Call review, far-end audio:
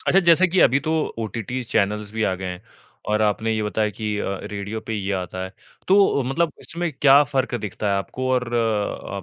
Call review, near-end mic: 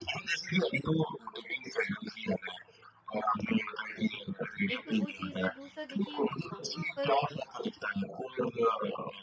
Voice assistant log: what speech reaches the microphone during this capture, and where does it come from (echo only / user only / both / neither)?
both